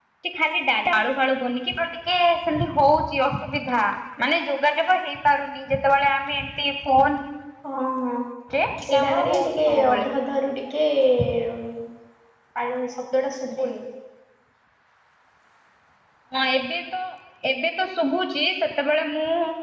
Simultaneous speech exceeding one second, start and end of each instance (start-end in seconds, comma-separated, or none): 8.8-10.1